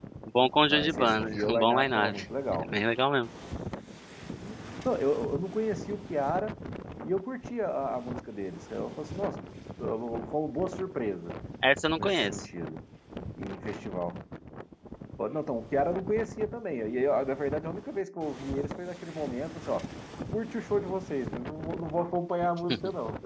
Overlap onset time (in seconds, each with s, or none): 0.7 s